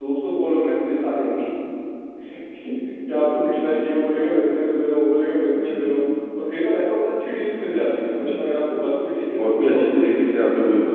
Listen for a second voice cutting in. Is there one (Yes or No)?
Yes